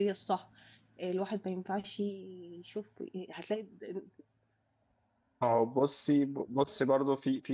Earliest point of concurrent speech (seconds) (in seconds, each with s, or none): none